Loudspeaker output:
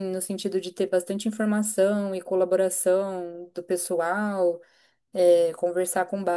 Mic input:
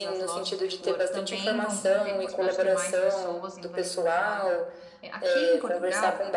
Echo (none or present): present